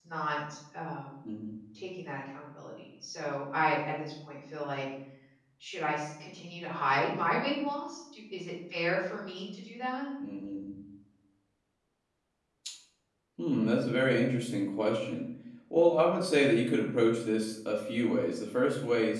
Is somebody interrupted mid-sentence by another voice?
No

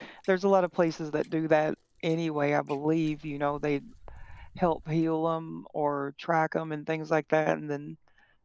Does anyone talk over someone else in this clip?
No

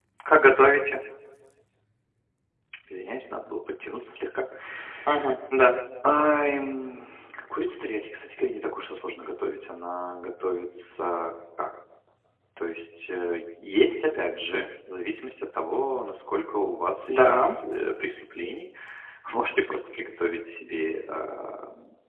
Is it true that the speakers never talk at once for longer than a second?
Yes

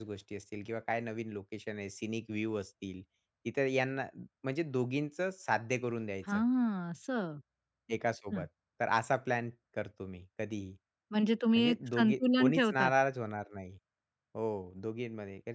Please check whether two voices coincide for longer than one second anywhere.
Yes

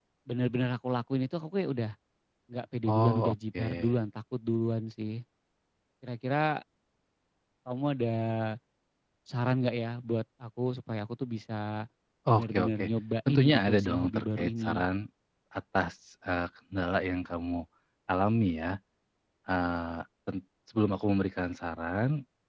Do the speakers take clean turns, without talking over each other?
No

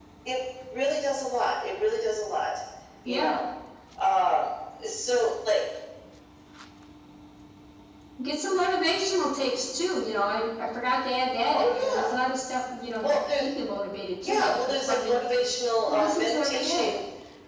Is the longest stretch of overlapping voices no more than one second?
No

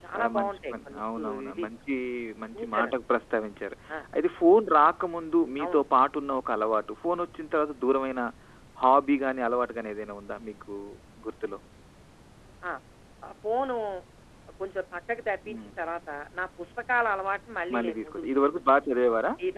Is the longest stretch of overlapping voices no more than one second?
No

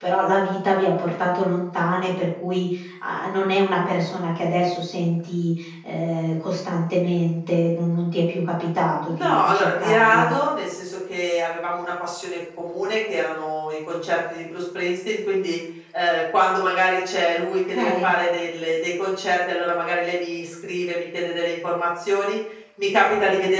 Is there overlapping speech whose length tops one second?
Yes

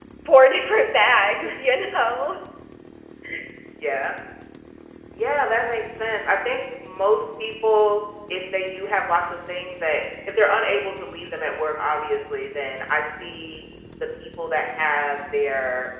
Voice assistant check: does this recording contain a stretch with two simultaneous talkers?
No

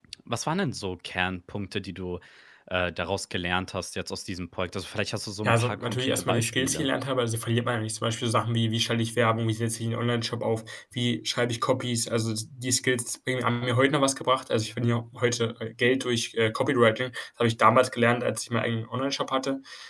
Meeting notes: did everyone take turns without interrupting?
No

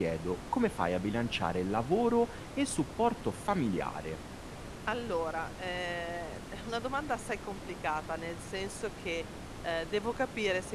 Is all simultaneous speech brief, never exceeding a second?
Yes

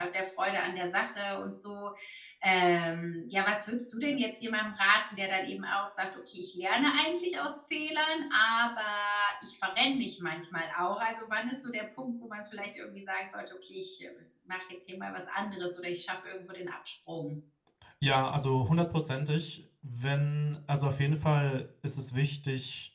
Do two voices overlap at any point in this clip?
No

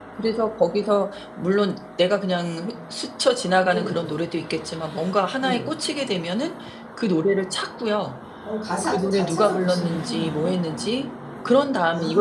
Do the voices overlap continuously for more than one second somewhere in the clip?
Yes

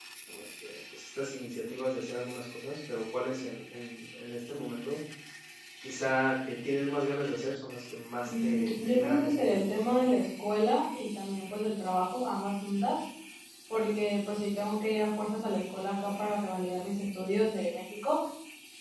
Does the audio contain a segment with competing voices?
Yes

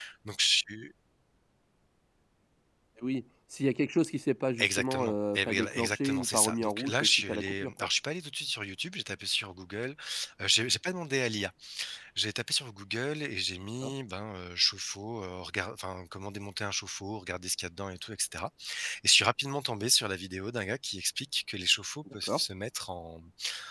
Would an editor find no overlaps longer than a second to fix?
No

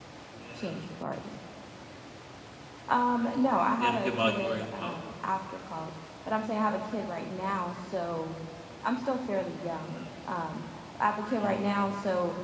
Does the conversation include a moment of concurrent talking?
Yes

